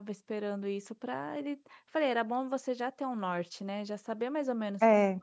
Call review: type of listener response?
listening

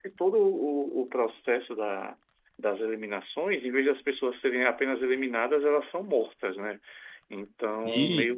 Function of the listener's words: listening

